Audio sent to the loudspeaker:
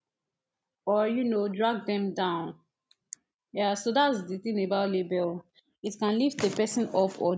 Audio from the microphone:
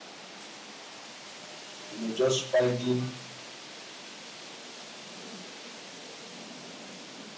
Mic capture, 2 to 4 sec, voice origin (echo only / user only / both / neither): user only